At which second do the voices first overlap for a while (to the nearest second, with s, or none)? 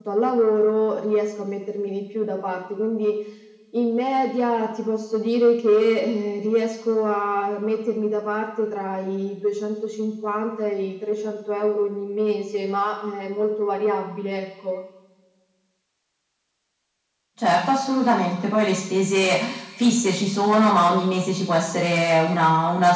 none